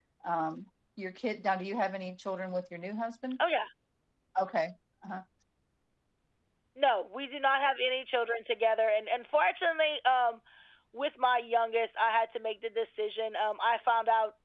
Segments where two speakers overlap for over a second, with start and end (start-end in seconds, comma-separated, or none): none